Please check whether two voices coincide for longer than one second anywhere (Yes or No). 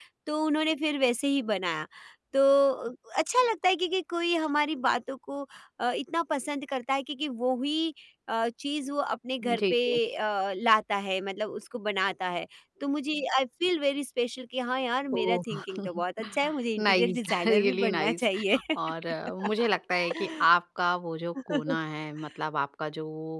Yes